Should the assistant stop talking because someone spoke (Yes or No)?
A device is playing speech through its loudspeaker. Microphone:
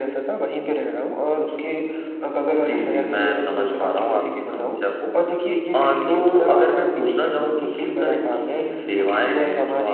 No